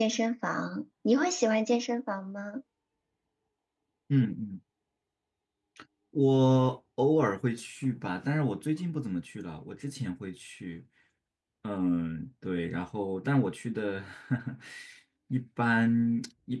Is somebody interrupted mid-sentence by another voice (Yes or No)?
No